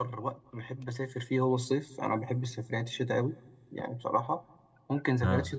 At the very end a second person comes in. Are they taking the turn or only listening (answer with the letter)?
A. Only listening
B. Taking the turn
A